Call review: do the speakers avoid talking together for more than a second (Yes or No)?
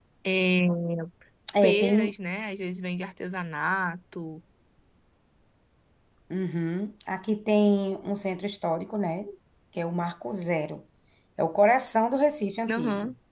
Yes